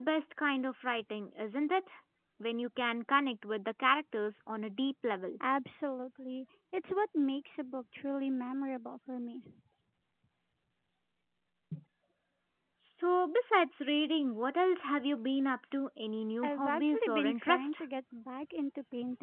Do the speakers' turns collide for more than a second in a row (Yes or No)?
Yes